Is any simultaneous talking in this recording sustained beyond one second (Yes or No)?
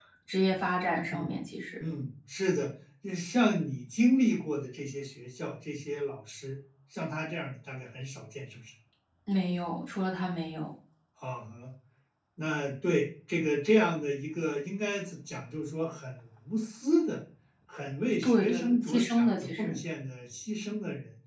Yes